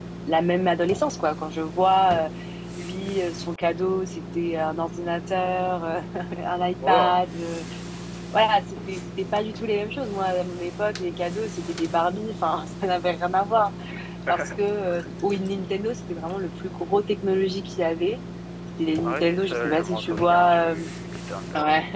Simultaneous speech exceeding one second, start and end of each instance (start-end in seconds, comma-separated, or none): 19.0-20.9